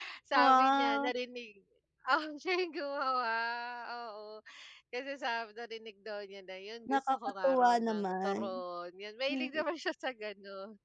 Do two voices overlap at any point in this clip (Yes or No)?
Yes